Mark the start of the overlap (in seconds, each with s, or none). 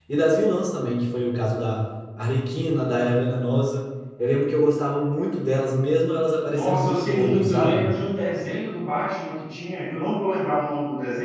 6.5 s